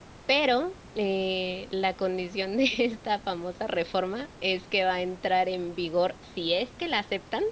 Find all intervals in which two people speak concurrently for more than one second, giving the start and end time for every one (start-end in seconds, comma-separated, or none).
none